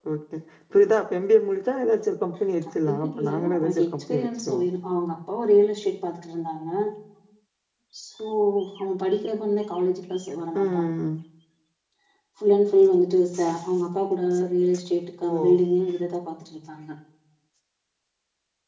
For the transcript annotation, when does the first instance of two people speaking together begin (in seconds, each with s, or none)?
2.9 s